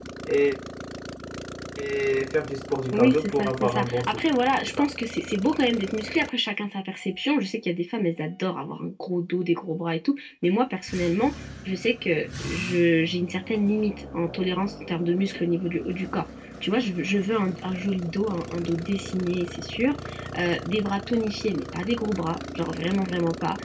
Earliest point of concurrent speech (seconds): 2.9 s

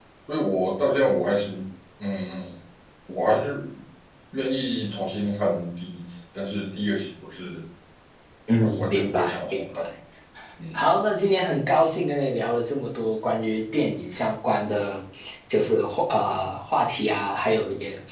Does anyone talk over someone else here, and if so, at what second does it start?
8.6 s

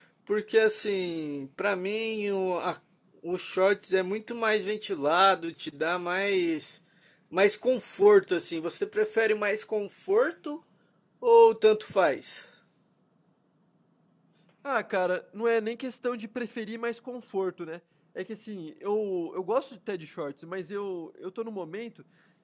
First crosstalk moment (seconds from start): none

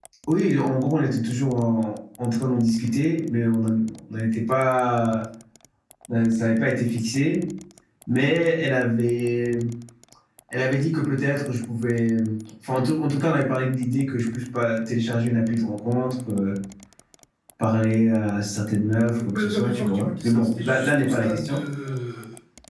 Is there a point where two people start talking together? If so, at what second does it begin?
19.0 s

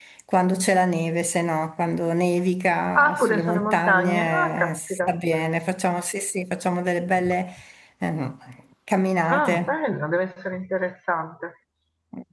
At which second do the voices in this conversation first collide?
3.0 s

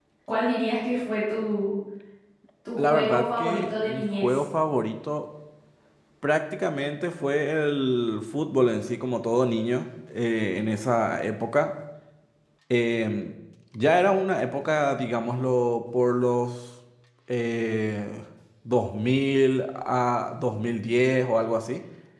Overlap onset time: 2.8 s

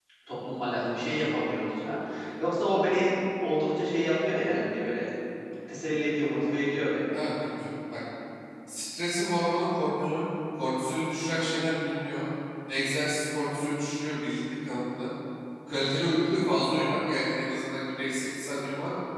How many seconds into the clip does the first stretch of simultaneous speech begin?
none

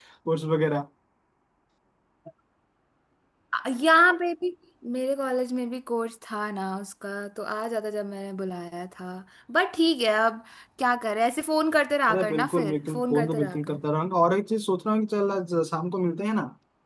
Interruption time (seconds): 12.1 s

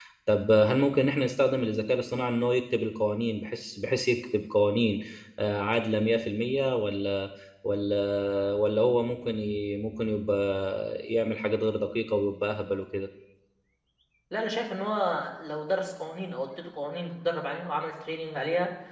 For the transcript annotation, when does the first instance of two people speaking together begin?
none

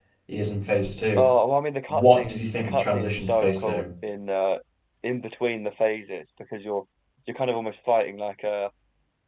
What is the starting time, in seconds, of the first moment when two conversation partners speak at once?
1.9 s

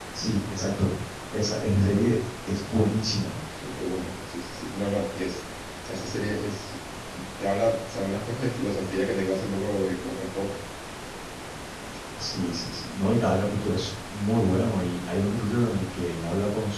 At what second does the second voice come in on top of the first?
none

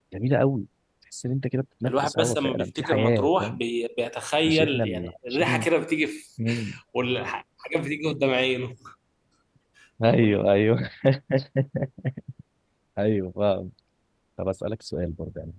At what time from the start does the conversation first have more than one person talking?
1.9 s

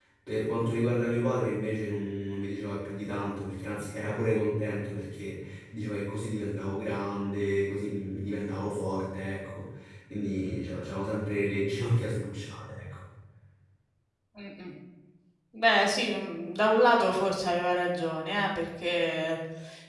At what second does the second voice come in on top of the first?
none

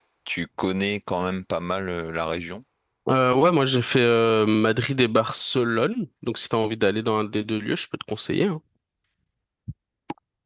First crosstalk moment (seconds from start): none

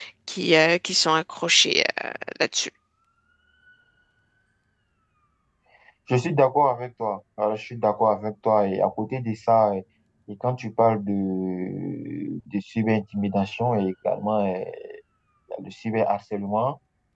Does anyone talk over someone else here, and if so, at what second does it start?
none

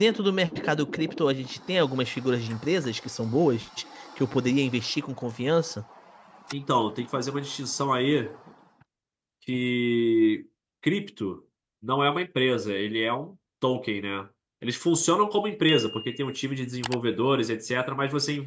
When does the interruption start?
none

